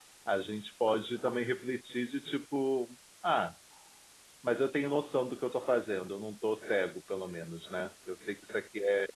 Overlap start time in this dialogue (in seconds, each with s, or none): none